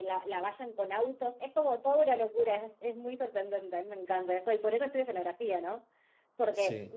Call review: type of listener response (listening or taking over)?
listening